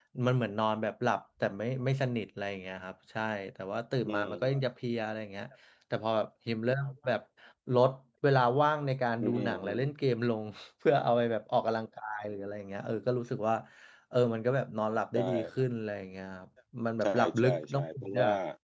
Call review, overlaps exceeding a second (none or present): present